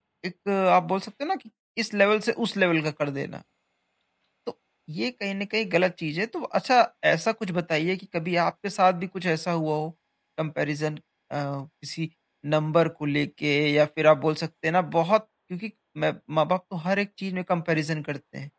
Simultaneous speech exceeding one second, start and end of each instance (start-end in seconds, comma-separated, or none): none